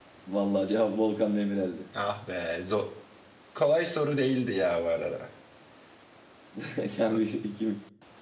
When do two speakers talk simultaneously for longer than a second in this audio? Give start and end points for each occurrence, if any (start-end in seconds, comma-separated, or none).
none